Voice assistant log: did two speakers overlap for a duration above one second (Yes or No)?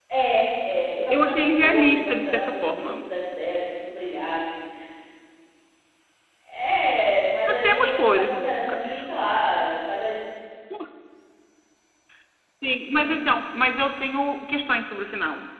Yes